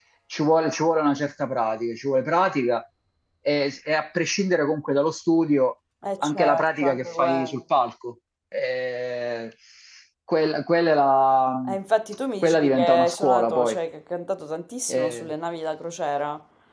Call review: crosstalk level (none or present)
present